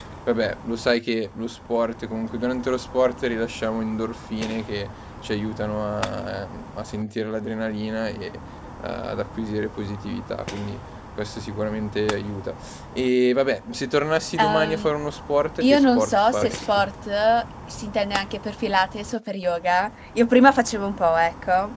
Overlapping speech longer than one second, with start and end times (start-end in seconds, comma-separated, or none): 15.6-16.9